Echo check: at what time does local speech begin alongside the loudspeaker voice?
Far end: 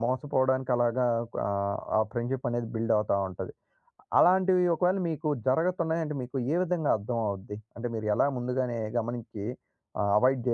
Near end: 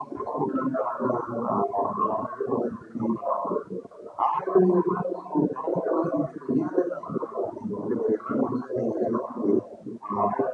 none

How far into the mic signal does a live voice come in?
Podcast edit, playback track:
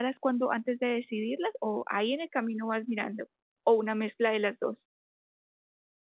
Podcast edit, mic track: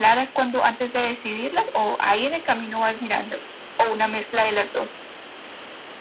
none

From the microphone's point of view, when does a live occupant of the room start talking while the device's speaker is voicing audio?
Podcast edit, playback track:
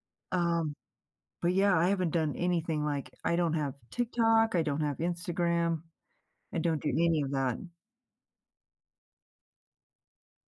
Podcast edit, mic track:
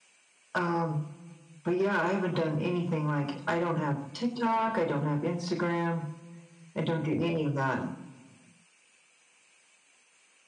none

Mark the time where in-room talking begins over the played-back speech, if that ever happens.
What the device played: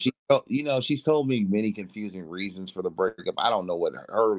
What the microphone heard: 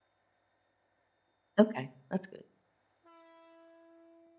1.6 s

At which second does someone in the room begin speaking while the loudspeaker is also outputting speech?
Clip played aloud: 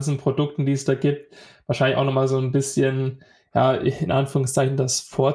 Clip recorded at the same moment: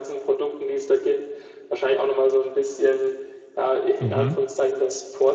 4.0 s

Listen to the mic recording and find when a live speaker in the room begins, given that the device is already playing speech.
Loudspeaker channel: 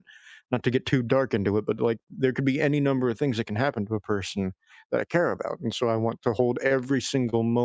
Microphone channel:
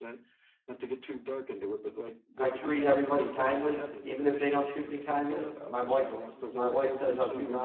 2.4 s

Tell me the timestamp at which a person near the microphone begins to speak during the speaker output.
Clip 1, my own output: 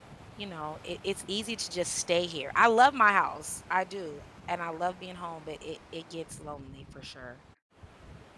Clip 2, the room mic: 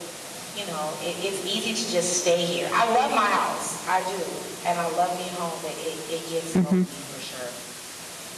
6.5 s

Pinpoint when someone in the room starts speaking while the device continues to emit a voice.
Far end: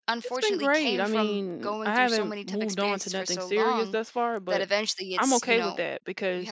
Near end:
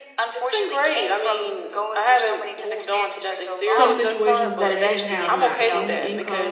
3.7 s

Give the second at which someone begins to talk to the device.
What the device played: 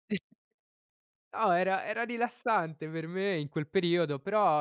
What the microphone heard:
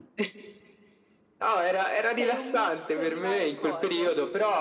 2.1 s

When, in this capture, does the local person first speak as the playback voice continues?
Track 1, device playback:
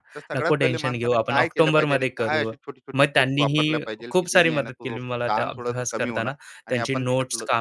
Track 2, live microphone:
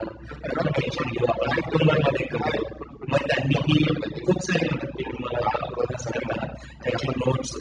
none

